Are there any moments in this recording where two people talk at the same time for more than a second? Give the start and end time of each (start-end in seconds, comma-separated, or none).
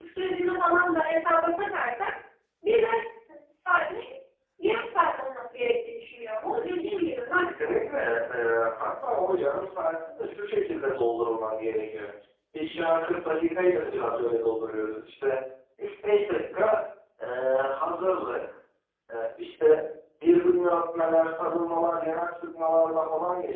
none